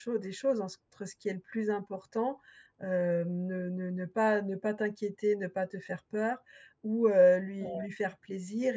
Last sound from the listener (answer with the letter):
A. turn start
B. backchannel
B